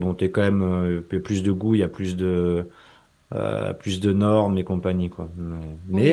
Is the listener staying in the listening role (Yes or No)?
Yes